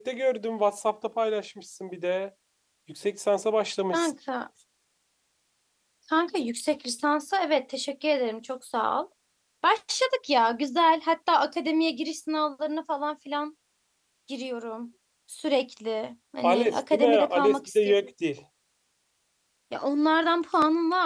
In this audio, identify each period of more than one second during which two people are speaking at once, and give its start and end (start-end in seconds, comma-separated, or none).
16.4-17.9